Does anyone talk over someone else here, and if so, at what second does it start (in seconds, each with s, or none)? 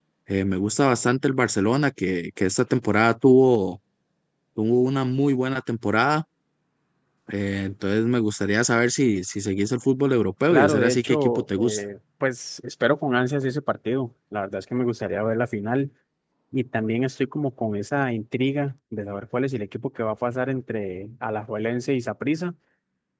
10.5 s